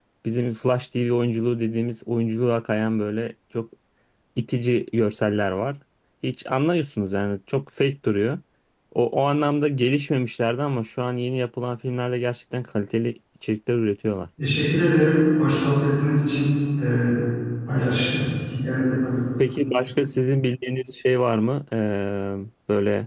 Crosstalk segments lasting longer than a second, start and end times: none

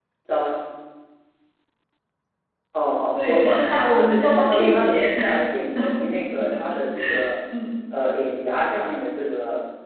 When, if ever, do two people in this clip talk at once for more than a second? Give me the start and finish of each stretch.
3.1-5.1

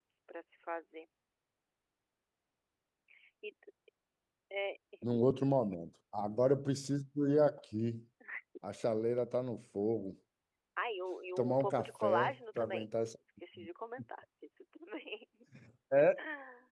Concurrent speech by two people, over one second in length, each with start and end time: 11.4-12.9

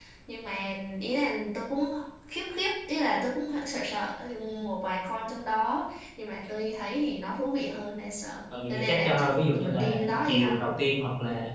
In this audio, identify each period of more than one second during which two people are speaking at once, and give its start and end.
8.7-10.6

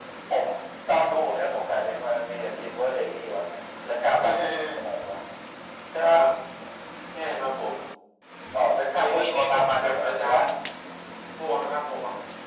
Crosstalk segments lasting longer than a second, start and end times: 8.9-10.4

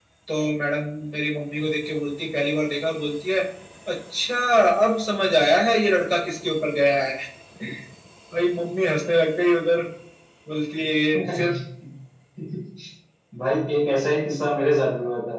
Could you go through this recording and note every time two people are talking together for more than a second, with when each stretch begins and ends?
none

